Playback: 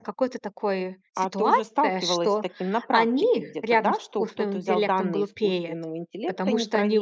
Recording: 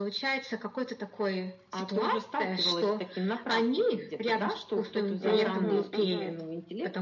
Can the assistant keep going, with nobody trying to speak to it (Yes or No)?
No